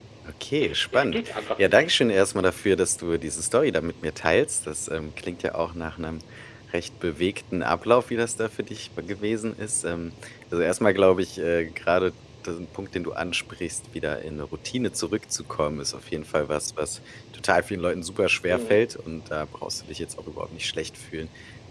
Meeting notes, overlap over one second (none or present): present